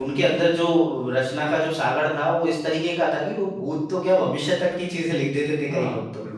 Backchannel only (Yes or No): No